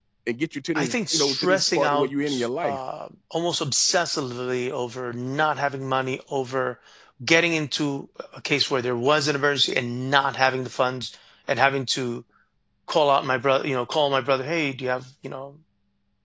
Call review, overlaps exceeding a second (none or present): present